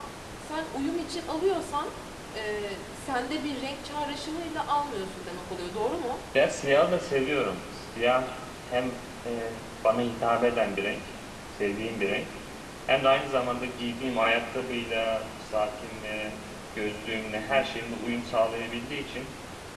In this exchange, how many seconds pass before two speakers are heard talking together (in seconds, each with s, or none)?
none